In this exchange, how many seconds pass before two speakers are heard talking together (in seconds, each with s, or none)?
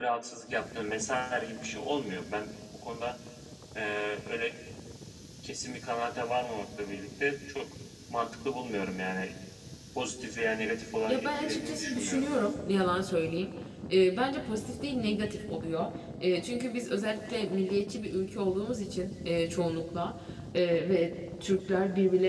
11.1 s